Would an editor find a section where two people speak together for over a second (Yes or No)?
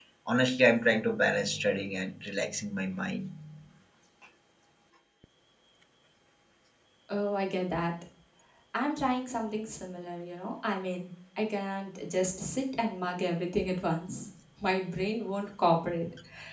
No